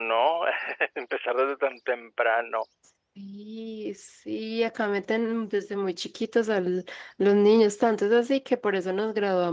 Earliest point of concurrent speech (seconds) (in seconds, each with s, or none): none